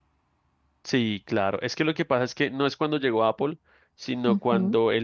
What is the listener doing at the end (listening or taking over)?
listening